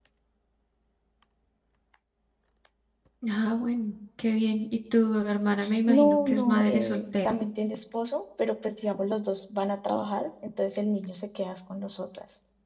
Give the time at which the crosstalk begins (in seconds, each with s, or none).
5.9 s